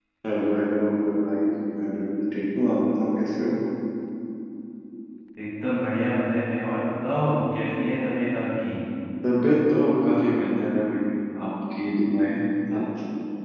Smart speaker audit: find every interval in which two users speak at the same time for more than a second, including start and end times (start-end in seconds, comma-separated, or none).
none